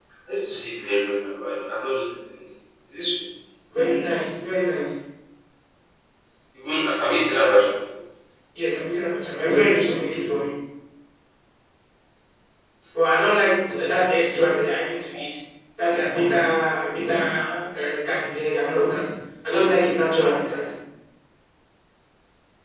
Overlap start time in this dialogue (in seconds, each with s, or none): none